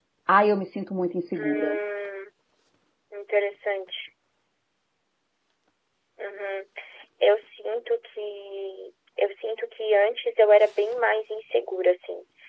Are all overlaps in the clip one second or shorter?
Yes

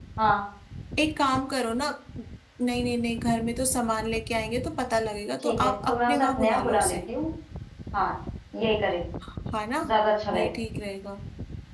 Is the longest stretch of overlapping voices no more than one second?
No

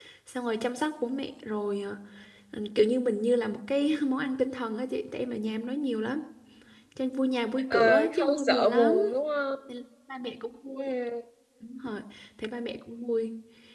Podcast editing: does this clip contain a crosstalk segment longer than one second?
Yes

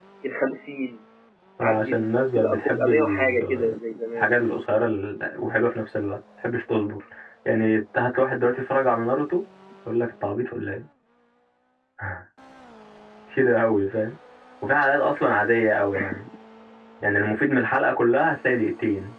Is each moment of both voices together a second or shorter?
No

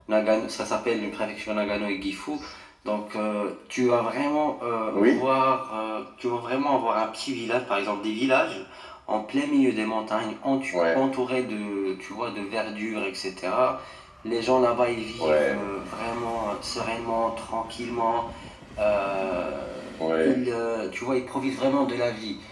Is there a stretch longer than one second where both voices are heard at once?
No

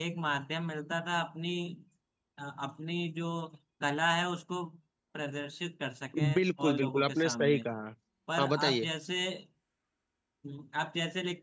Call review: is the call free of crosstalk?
No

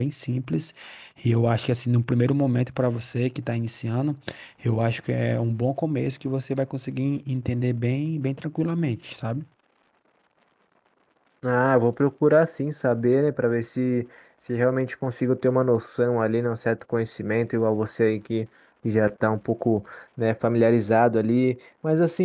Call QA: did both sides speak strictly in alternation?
Yes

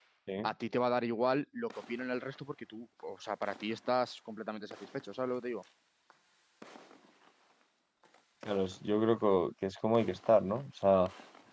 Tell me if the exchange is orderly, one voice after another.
Yes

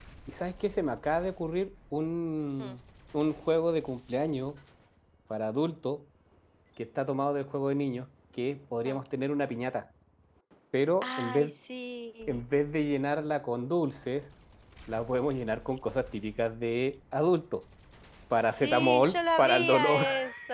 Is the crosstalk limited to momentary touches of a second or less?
No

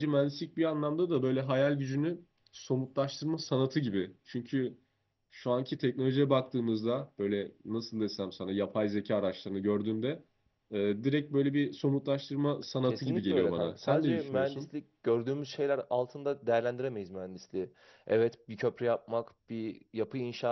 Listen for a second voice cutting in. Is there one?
Yes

